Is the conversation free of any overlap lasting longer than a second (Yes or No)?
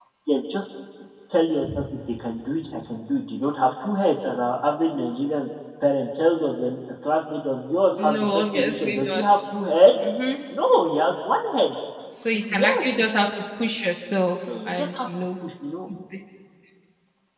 No